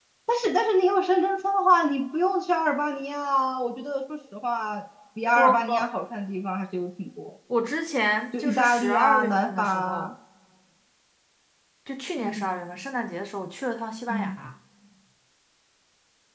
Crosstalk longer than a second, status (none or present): present